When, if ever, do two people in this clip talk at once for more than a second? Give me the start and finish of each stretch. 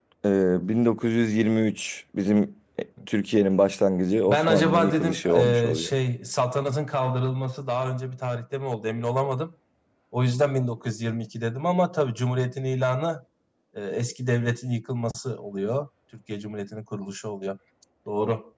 4.3-5.9

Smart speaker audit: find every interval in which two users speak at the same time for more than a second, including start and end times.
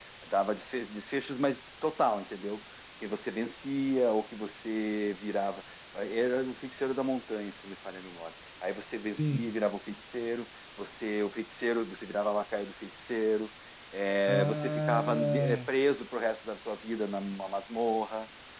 14.3-15.7

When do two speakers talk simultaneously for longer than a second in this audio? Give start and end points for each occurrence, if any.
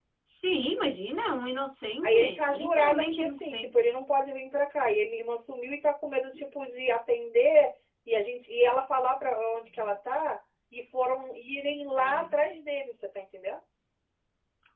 2.0-3.9

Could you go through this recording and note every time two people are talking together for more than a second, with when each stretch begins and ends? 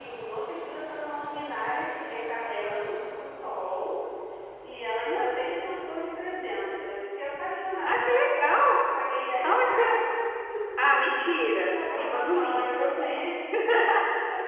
11.8-13.1

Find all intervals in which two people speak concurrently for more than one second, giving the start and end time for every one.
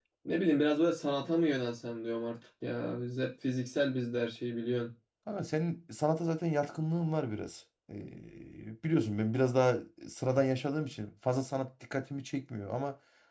none

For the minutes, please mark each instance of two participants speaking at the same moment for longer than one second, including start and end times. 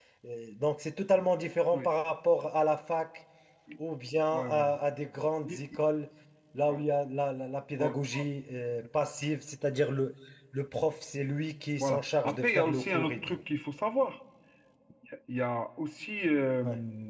11.8-13.4

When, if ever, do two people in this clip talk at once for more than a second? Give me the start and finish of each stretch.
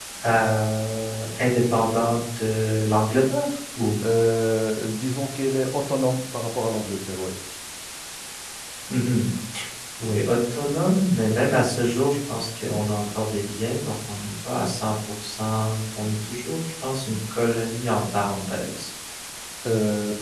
none

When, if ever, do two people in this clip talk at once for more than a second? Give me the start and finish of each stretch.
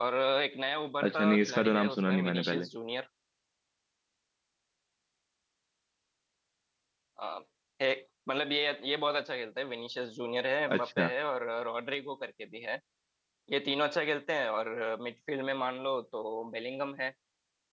1.0-2.6

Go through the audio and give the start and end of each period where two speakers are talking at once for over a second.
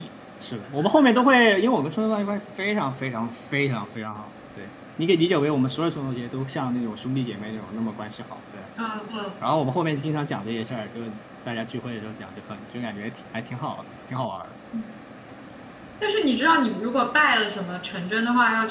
none

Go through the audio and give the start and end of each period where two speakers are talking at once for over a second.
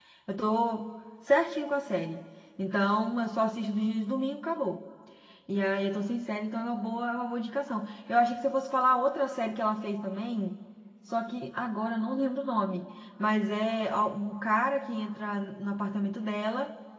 none

